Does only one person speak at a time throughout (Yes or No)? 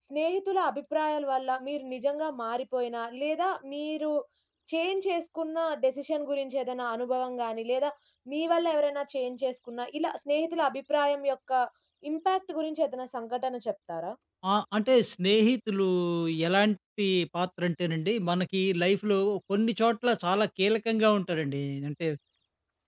Yes